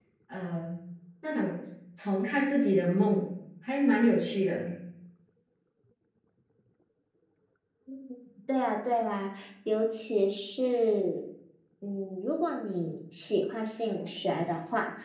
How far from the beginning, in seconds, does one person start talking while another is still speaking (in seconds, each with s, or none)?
none